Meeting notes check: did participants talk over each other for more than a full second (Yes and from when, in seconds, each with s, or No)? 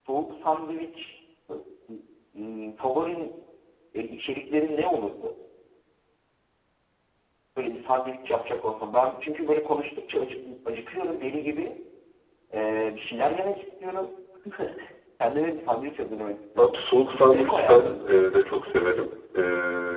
Yes, from 16.6 s